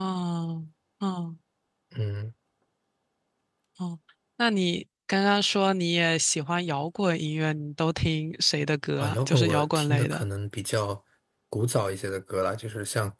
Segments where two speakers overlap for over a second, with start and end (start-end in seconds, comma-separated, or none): 9.0-10.2